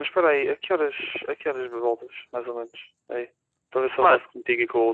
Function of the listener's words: listening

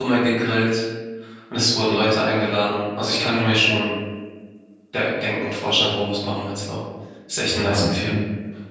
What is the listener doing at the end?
taking over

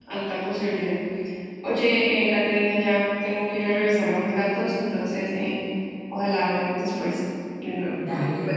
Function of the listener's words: taking over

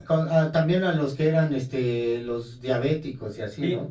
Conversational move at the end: taking over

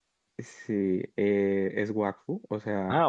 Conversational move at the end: listening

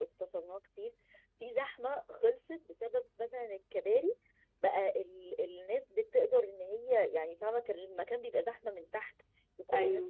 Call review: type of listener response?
listening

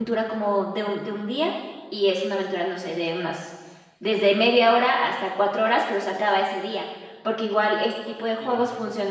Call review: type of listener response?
listening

